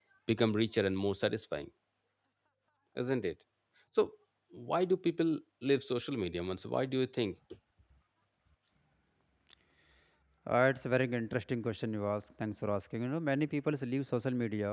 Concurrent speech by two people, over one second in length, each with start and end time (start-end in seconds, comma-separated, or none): none